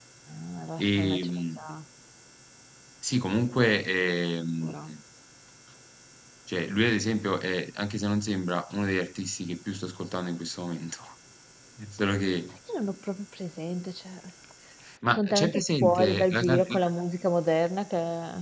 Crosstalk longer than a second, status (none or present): present